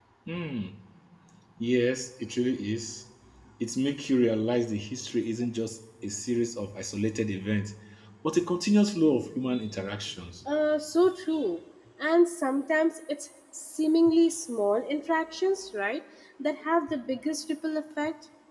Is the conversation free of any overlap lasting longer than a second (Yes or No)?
Yes